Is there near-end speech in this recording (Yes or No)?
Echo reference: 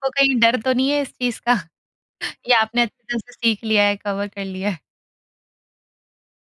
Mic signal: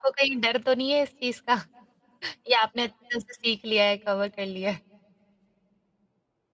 No